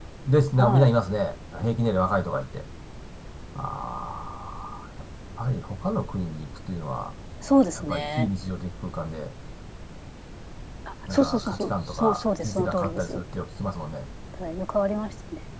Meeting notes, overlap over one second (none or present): present